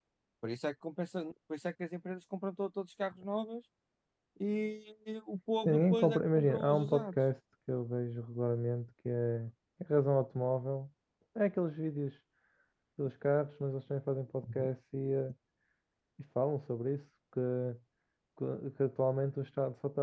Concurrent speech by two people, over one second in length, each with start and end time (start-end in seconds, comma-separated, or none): 5.7-7.2